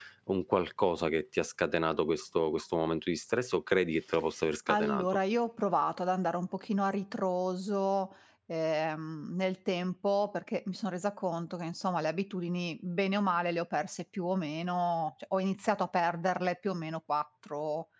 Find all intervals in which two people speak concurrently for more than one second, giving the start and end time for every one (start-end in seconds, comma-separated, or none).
none